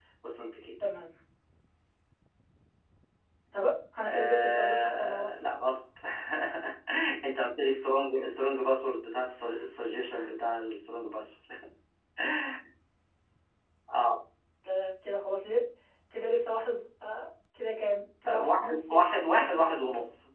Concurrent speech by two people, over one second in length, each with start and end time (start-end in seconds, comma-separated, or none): 4.1-5.3, 18.3-19.8